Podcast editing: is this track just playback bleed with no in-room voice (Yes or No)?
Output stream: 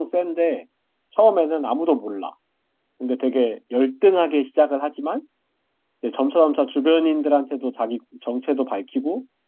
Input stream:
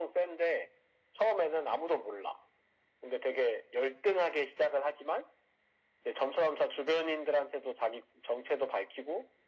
Yes